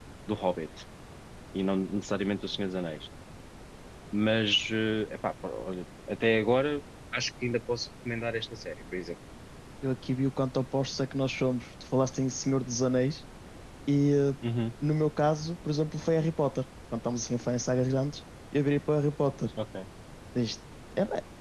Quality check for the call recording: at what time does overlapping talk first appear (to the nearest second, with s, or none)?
none